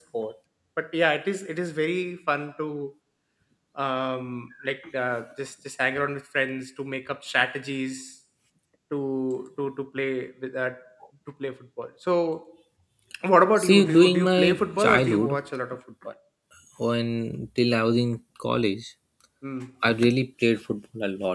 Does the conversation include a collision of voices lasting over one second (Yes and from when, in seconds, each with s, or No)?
Yes, from 13.6 s